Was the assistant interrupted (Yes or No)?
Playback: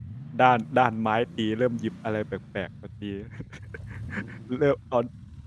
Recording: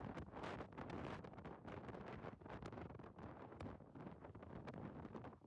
No